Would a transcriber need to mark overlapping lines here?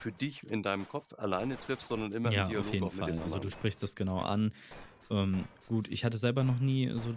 Yes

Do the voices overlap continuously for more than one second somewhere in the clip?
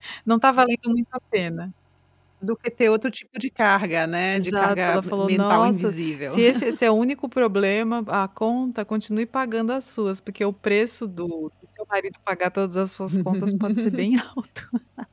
Yes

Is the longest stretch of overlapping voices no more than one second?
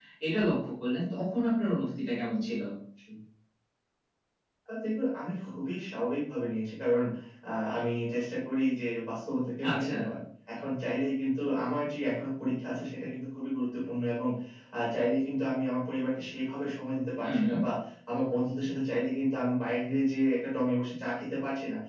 Yes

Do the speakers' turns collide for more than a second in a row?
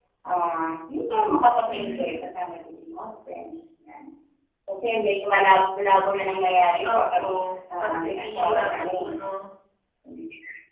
Yes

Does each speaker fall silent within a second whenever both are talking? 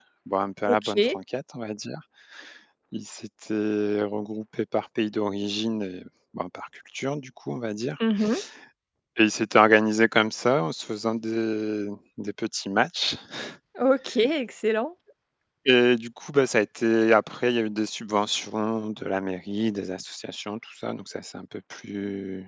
Yes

